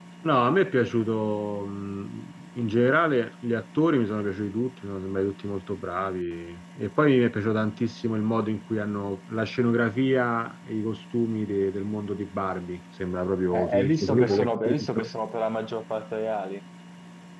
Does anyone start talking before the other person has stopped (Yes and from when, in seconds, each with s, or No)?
Yes, from 13.5 s